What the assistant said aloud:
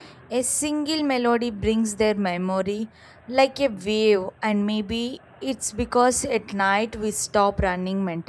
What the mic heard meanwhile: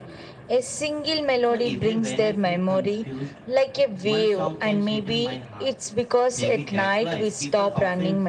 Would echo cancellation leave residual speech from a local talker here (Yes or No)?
Yes